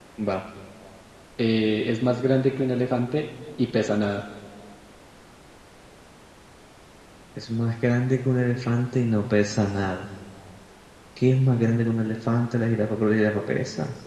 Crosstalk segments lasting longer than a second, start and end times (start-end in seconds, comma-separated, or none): none